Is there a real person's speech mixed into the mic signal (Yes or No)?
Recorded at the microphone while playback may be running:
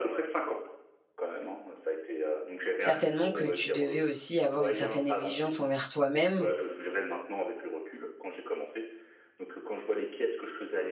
Yes